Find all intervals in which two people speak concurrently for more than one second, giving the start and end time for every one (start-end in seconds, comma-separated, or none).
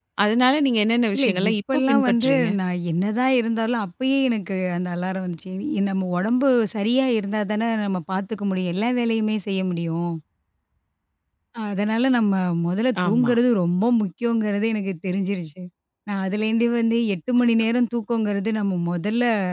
1.2-2.5